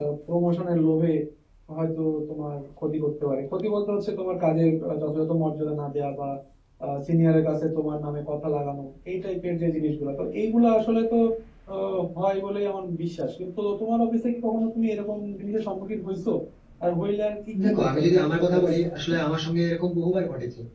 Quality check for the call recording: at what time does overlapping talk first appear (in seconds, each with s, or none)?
17.6 s